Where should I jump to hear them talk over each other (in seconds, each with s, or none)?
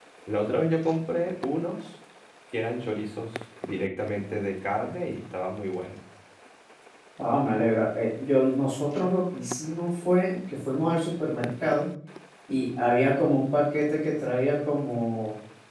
none